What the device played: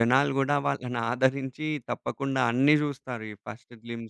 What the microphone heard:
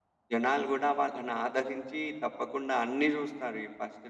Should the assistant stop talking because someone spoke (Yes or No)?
No